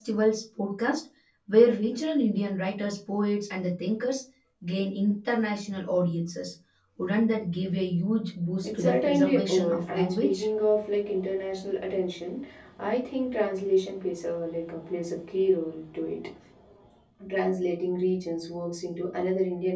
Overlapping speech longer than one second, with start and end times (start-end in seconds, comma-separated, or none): 8.6-10.4